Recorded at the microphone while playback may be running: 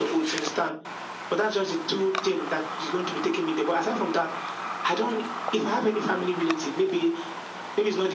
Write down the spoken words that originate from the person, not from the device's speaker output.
none

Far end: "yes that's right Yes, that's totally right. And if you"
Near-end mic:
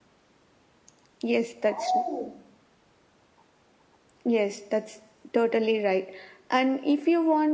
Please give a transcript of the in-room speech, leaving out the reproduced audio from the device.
Oh,

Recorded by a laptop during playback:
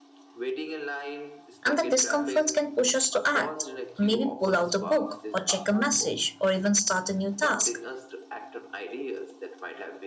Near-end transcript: And that discomfort can push us to act, maybe pull out a book, or check a message, or even start a new task.

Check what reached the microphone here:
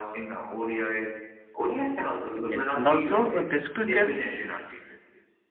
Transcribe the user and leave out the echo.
Yes, and also uh, test cricket

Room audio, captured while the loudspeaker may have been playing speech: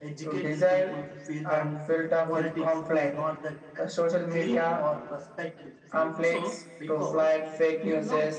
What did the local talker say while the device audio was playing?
So,

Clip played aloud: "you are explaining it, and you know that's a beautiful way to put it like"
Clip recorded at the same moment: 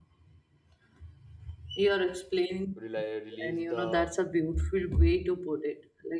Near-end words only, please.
rely, release the

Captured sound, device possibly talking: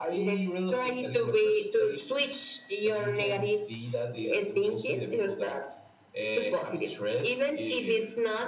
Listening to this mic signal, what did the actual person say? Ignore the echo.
none

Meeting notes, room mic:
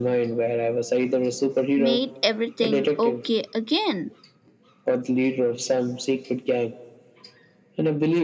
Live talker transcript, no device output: made everything okay again

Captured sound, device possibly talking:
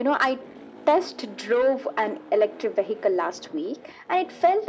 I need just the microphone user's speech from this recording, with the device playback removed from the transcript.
none

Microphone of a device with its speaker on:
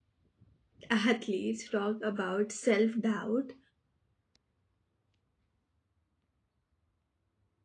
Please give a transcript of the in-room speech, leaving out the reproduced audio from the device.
athletes talk about self doubt

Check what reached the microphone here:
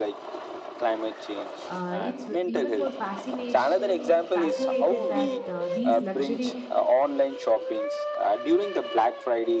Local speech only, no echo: uh, it's w- even more fascination fascinated that uh, these luxury

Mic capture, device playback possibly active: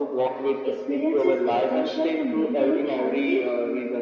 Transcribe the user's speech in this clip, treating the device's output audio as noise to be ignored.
experience is essential to maintaining healthy

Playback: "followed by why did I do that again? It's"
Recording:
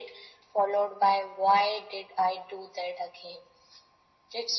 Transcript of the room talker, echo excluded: none

